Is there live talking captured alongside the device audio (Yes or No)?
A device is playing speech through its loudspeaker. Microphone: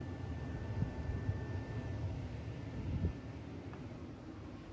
No